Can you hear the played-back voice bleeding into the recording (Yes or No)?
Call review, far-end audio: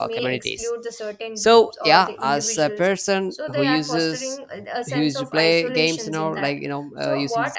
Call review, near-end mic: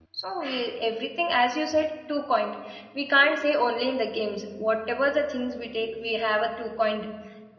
No